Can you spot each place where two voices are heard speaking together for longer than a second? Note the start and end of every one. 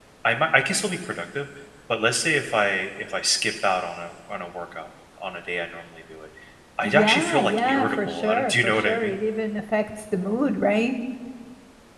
6.8-9.1

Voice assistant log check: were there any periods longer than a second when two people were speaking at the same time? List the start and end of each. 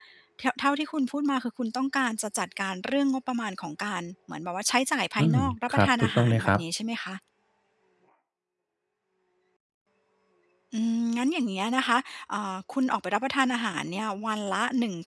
5.2-6.6

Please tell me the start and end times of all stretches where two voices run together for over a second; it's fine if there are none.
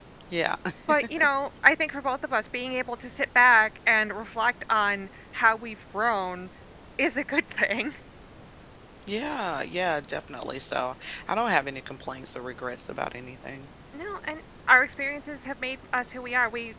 none

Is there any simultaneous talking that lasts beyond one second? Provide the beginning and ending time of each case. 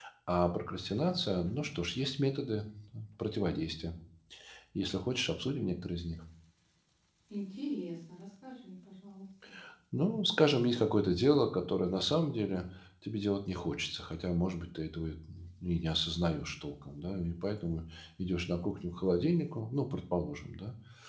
none

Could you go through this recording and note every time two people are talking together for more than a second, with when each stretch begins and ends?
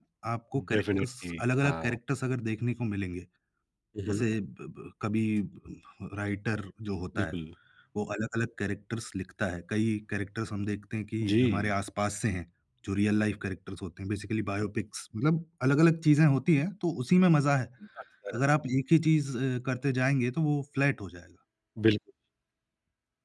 0.7-2.0

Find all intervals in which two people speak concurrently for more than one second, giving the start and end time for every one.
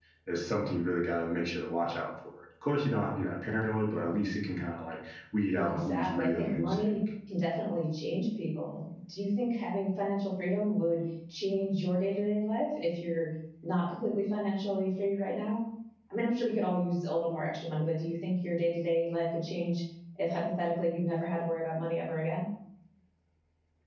5.5-7.0

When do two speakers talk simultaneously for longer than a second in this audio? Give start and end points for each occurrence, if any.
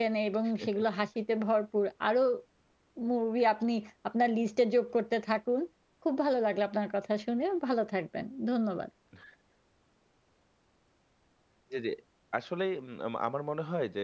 none

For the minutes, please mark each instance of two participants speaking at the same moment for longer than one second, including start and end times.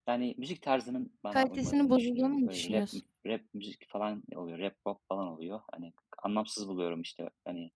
1.3-2.9

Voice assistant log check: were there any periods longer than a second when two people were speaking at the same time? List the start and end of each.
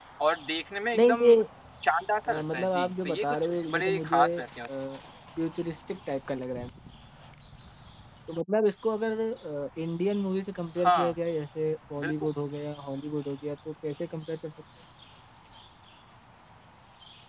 2.3-4.4

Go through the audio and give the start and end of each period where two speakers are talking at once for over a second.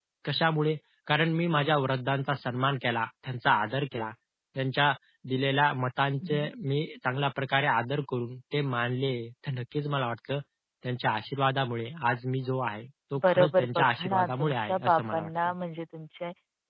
13.3-15.5

